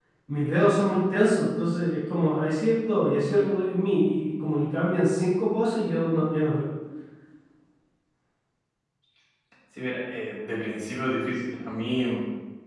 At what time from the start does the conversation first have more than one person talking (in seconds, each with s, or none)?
none